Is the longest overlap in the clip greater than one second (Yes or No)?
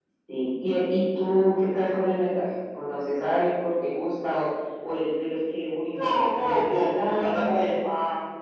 Yes